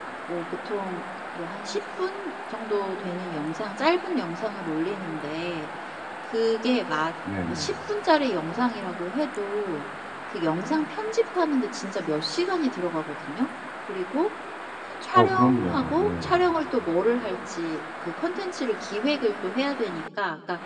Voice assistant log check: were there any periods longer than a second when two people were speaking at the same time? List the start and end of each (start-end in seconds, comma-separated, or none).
15.1-16.4